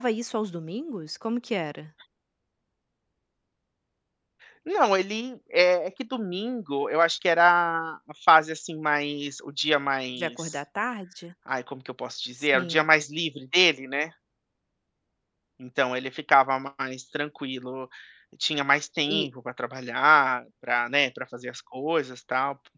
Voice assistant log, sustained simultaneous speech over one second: none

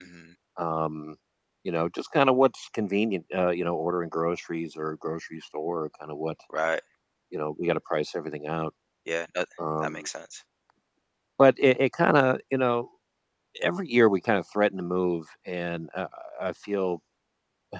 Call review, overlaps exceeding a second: none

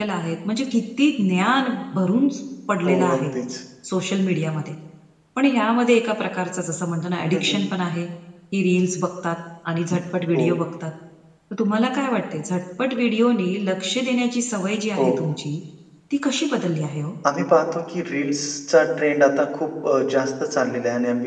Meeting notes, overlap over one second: none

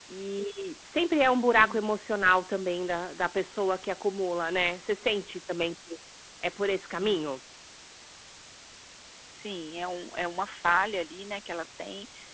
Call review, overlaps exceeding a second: none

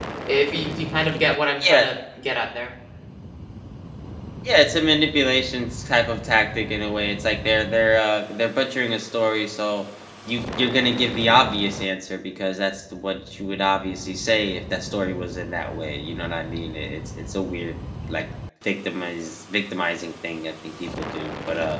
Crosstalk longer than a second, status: none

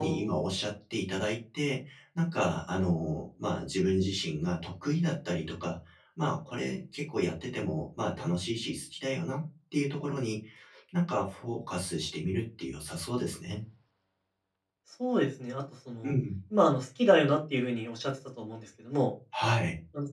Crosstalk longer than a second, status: none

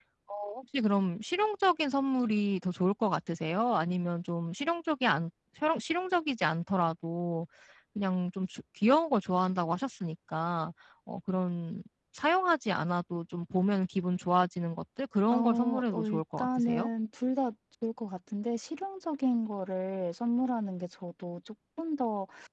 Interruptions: present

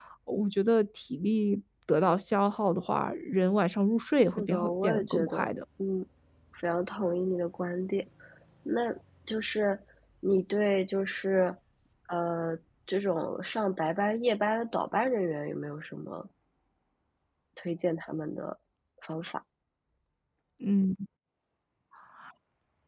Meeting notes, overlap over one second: present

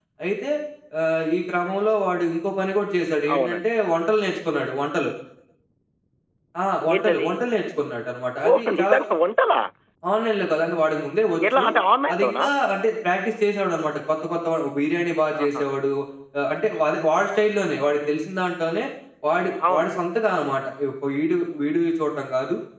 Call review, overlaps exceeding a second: none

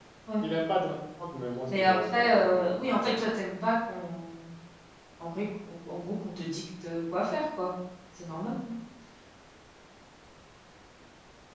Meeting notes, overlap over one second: present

